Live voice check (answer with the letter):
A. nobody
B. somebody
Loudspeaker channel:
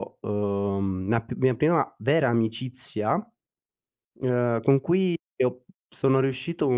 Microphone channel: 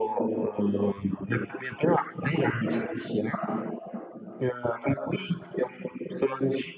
A